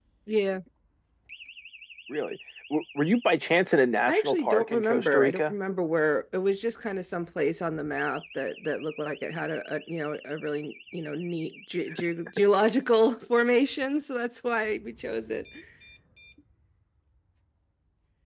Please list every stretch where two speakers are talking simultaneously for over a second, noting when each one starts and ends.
4.1-5.5

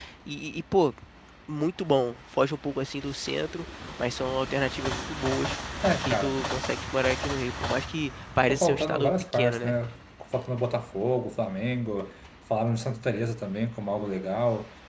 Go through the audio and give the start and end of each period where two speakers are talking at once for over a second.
8.5-9.8

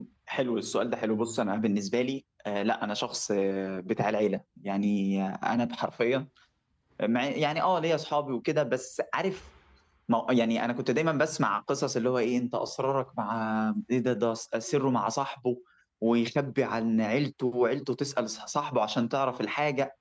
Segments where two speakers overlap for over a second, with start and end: none

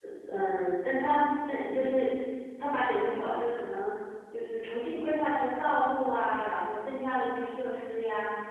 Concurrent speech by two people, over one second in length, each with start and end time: none

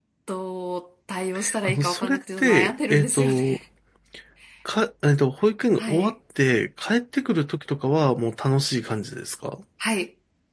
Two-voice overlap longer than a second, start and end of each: 1.6-3.6

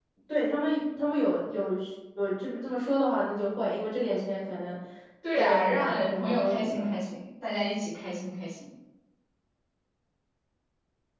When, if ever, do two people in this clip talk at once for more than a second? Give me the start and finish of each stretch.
5.4-7.0

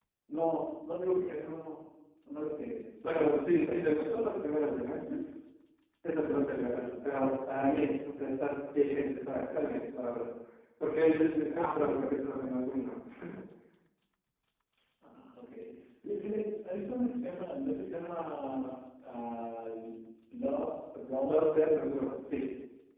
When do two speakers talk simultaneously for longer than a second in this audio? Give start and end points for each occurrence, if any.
3.0-4.2

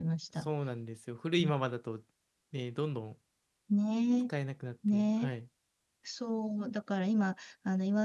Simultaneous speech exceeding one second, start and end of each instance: none

